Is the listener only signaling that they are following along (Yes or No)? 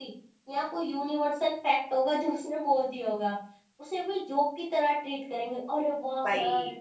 Yes